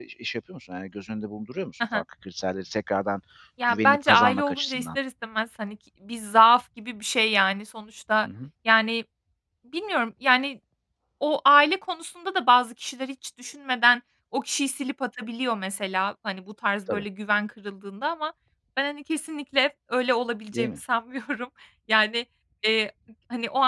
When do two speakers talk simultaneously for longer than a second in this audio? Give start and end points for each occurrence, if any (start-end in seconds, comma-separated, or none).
3.7-5.0